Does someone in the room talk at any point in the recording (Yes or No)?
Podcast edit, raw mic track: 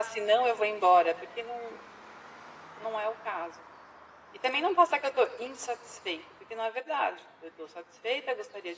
No